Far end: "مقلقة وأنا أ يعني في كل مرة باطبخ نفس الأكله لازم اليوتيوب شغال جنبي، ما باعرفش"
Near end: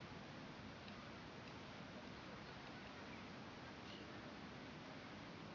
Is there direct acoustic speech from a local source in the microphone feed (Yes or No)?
No